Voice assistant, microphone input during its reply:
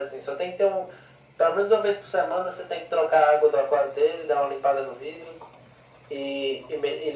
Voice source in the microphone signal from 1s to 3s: echo only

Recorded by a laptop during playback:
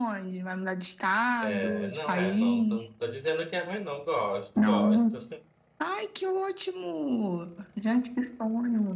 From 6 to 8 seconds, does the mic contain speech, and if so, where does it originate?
echo only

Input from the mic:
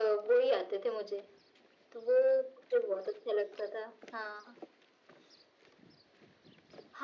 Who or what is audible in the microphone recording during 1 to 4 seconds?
echo only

